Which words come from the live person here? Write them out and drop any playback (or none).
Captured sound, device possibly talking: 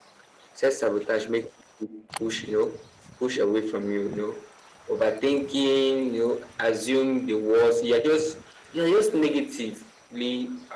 none